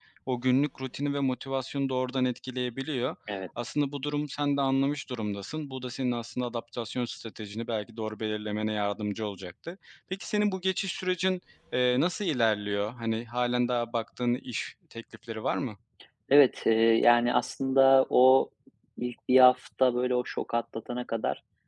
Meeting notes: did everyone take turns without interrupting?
Yes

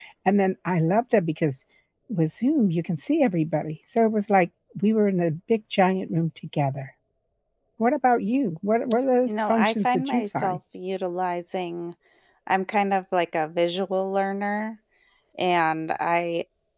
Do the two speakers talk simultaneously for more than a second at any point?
Yes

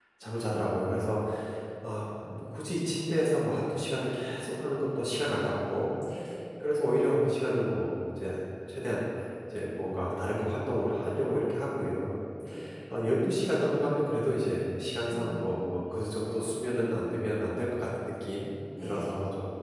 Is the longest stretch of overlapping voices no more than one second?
Yes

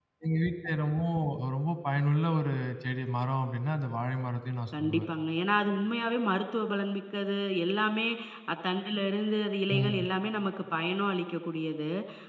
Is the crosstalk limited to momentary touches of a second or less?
Yes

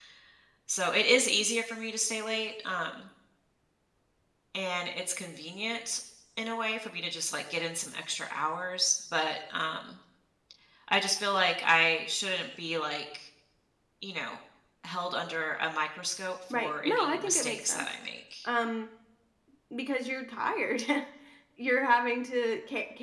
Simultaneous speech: Yes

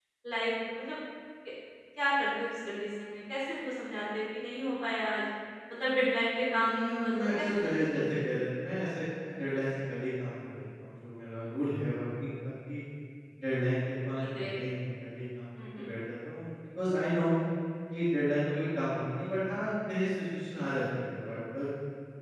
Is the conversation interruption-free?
No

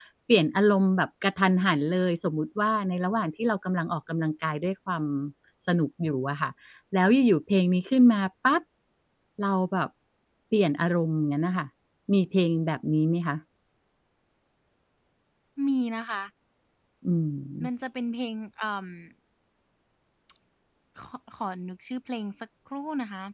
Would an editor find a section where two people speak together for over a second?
No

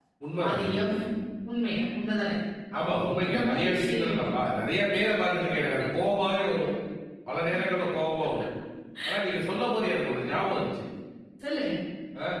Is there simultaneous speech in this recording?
Yes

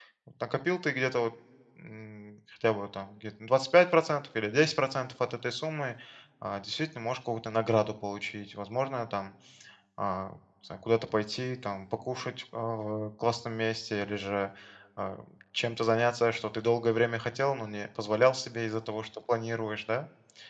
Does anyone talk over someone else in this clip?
No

